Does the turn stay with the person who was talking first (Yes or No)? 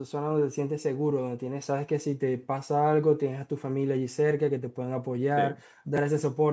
Yes